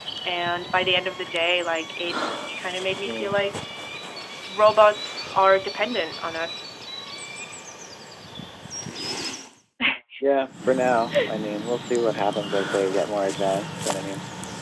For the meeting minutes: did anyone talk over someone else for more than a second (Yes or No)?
No